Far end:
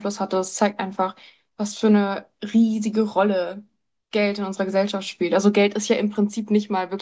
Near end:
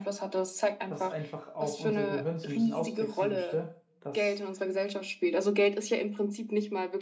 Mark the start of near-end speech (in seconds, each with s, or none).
0.8 s